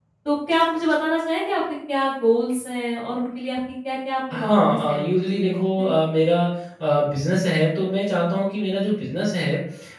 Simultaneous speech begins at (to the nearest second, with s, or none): 4 s